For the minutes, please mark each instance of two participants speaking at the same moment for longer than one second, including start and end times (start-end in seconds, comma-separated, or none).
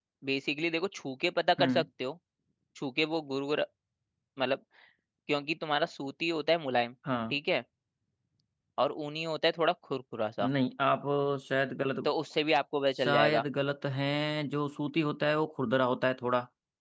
none